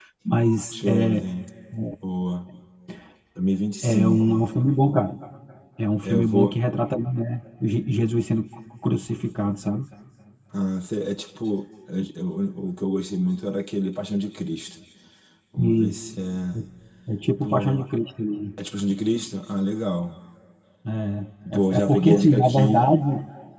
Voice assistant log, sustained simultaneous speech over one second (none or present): present